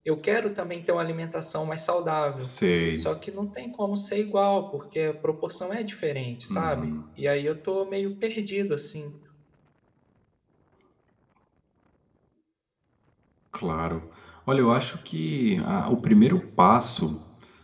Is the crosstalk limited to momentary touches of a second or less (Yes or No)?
Yes